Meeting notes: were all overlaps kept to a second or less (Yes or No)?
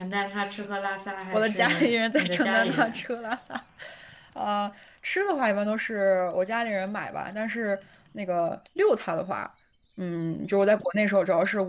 No